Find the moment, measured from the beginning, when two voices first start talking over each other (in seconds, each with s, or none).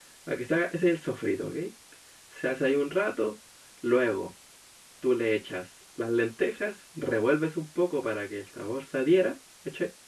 none